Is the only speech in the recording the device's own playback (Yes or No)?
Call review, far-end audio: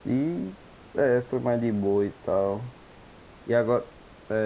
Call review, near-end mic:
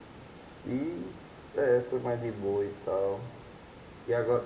Yes